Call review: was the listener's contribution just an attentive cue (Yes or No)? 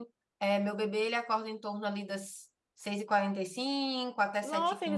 No